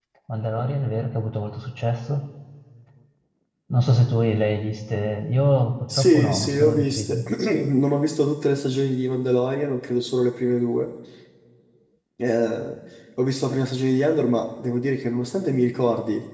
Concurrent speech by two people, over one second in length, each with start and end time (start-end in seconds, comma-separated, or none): 6.0-7.2